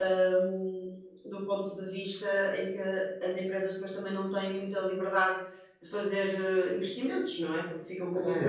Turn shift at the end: Yes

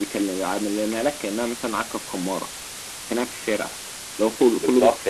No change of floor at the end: No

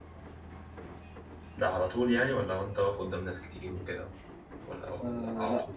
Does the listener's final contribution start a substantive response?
Yes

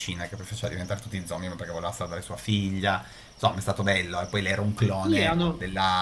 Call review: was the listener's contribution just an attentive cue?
No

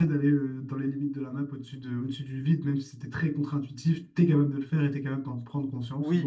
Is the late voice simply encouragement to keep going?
No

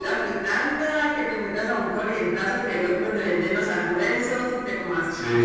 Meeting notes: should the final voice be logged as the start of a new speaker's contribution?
No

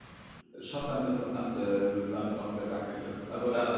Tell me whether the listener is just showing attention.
No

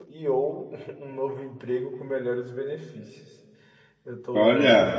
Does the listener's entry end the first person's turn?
No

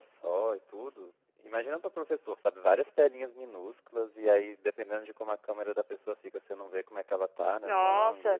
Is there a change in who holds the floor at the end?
Yes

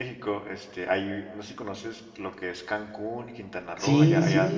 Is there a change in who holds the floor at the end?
No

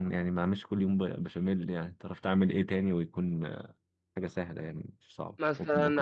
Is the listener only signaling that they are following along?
No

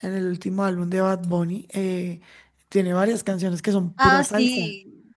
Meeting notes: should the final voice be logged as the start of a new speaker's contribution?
Yes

